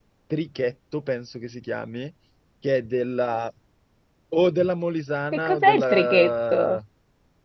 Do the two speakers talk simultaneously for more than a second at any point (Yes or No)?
Yes